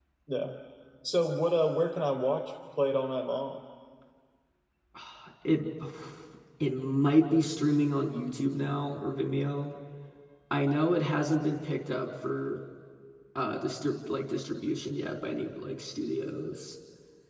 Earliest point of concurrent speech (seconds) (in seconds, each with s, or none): none